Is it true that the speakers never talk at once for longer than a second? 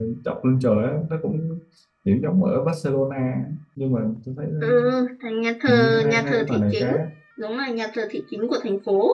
No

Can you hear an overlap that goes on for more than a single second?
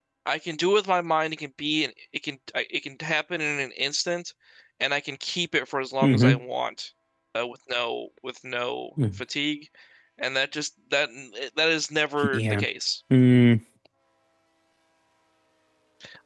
No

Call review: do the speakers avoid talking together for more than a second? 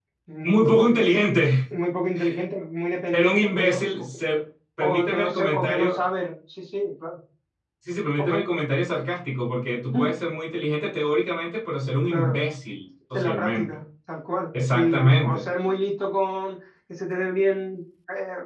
No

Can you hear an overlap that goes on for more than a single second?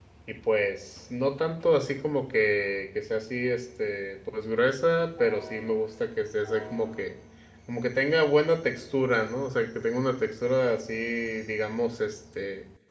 No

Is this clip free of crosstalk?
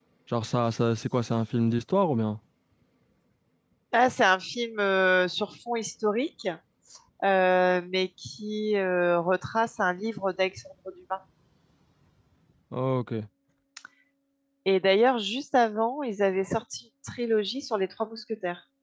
Yes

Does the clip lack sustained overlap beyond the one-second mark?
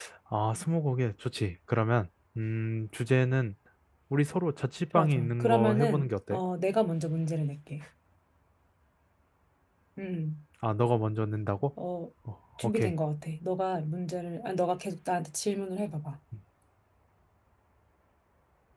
No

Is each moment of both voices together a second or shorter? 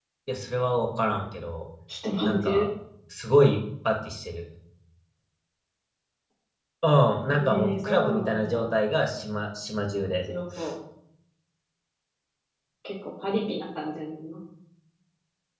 No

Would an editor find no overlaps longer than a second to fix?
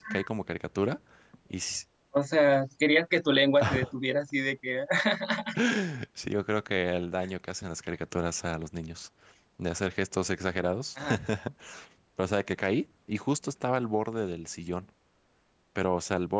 Yes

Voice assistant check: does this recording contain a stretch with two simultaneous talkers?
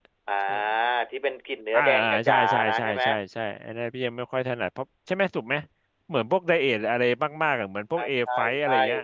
Yes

